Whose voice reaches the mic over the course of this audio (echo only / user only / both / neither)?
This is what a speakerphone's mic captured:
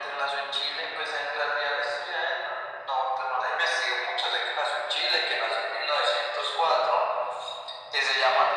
echo only